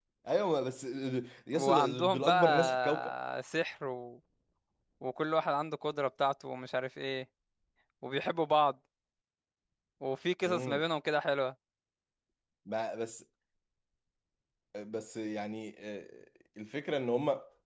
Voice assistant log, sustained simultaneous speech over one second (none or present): present